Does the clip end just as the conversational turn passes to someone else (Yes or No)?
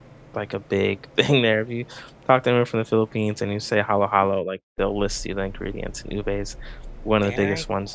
Yes